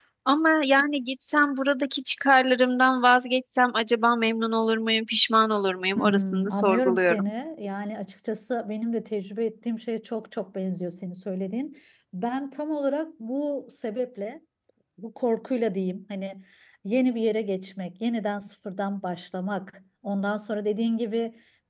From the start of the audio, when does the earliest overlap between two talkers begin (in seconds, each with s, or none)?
6.0 s